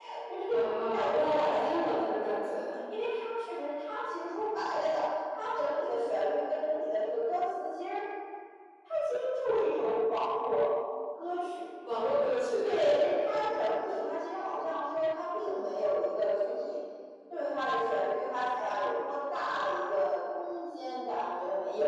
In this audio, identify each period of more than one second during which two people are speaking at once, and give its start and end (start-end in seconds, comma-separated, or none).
0.5-2.6